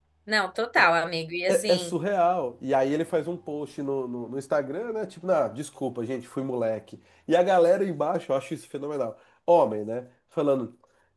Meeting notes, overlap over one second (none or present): none